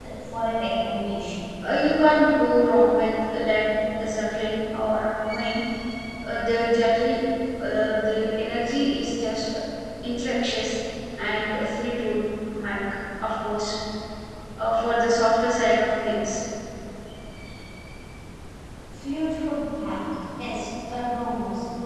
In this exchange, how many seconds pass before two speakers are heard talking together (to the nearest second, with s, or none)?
none